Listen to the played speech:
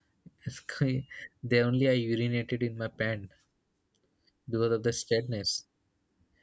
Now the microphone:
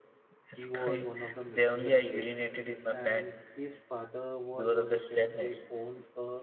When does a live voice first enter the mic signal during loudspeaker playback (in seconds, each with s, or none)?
0.5 s